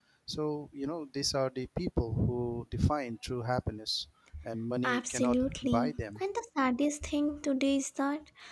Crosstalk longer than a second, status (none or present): present